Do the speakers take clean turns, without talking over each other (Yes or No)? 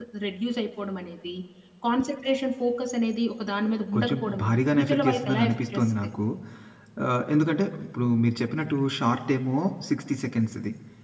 No